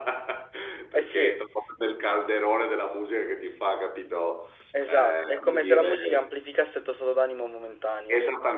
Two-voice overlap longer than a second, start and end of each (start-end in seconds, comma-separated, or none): 4.9-6.2